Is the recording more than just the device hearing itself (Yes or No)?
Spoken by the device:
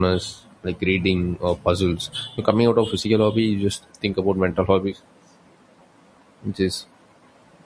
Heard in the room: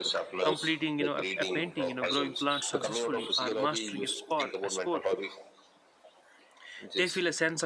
Yes